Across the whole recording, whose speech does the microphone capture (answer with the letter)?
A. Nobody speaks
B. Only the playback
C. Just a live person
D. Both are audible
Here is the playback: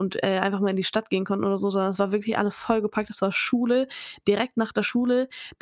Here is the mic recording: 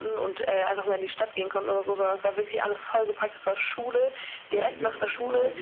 D